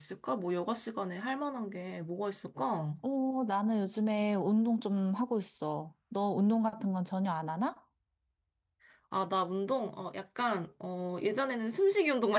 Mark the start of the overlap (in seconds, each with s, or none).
none